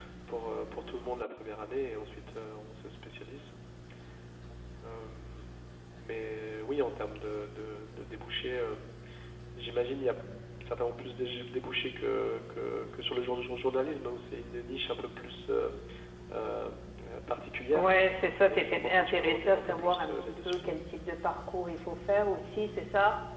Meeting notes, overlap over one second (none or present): present